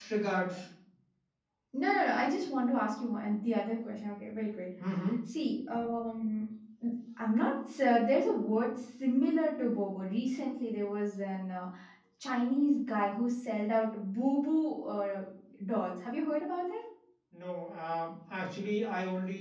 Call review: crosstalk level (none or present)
none